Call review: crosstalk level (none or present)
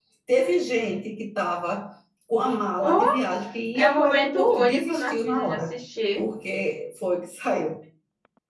present